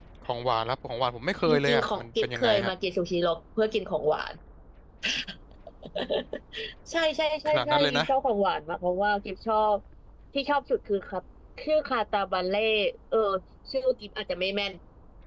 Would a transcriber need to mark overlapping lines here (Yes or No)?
Yes